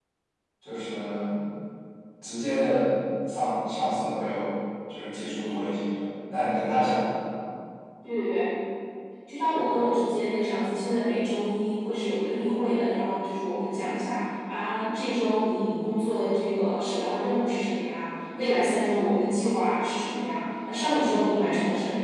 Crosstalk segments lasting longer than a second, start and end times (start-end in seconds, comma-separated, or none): none